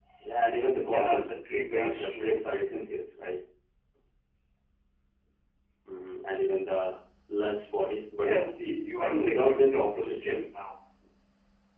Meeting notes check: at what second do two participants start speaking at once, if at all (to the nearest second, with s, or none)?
1 s